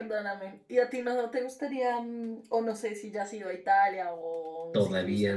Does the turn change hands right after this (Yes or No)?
Yes